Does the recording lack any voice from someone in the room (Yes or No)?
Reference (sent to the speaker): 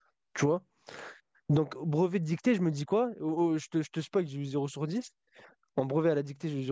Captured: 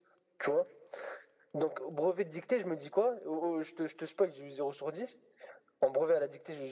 Yes